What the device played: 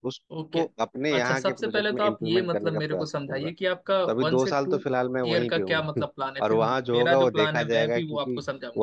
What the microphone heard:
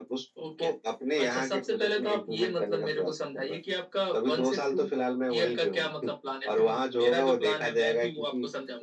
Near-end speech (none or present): none